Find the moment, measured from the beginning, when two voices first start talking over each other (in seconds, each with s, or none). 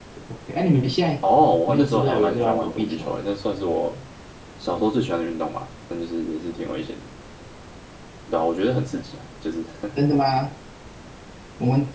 1.7 s